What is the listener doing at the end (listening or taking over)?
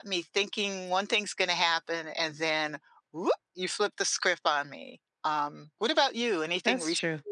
taking over